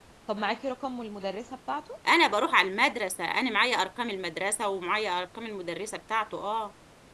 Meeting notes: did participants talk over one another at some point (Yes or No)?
No